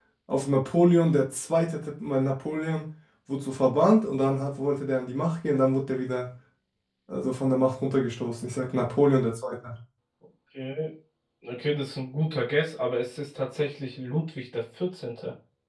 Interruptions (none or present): none